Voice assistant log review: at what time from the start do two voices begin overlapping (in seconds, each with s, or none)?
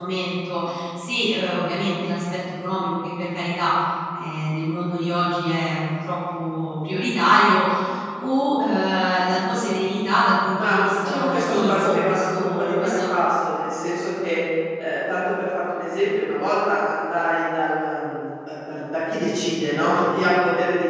10.5 s